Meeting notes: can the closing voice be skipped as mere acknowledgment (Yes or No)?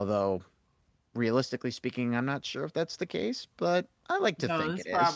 No